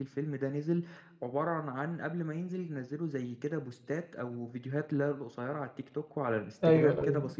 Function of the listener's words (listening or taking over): listening